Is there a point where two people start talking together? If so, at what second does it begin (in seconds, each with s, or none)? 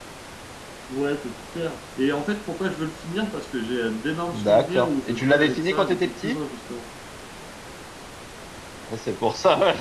4.3 s